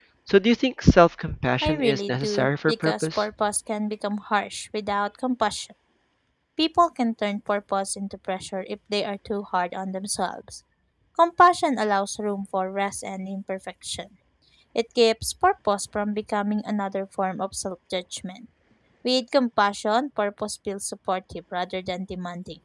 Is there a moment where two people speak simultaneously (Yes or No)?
Yes